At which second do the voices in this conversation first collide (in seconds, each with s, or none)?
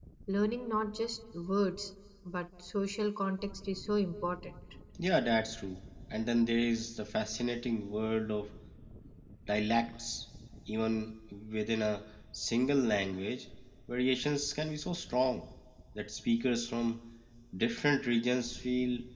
none